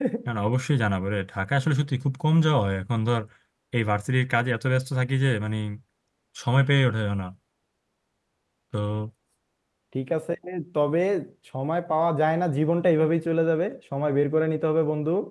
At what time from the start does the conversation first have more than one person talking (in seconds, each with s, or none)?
none